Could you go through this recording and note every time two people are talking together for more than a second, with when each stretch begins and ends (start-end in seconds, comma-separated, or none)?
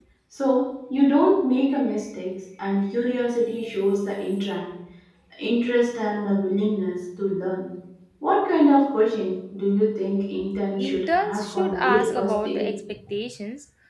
10.8-12.7